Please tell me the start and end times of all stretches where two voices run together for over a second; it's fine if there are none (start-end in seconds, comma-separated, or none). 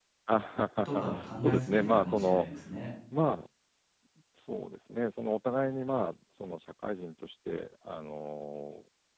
0.8-2.5